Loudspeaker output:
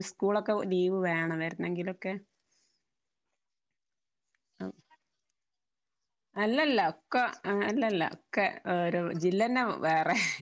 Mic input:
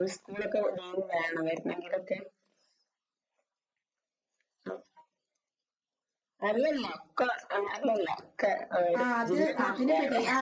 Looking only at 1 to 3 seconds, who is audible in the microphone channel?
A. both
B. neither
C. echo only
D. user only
C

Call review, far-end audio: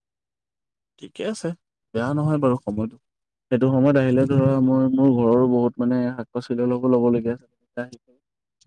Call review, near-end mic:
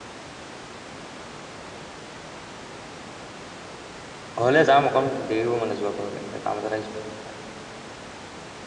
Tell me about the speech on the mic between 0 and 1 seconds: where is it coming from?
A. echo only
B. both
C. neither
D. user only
C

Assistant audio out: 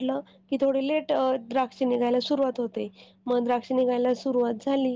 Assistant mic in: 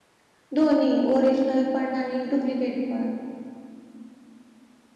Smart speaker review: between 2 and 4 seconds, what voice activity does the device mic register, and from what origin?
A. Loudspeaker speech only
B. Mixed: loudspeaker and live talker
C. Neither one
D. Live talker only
D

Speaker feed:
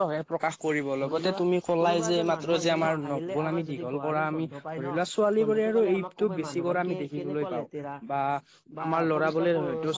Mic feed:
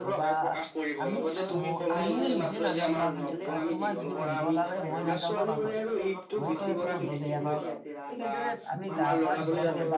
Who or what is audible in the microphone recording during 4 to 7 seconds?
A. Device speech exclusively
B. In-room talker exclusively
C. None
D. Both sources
D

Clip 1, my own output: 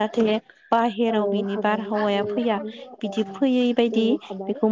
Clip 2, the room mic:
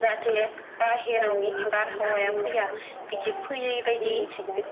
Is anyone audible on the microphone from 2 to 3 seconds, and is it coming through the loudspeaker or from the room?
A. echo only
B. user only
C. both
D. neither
A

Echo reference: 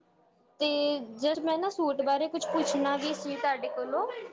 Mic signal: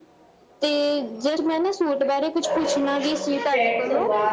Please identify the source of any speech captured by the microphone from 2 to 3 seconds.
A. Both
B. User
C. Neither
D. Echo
D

